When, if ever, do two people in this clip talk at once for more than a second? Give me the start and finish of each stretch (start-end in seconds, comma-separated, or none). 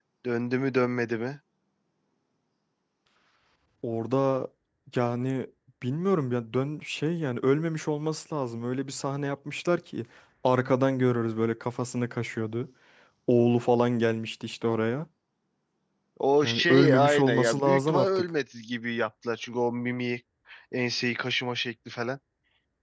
16.4-18.2